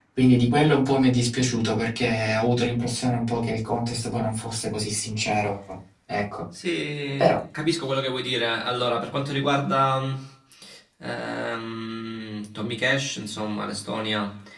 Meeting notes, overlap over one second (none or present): none